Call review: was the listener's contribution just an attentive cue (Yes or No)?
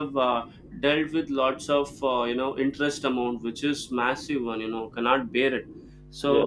Yes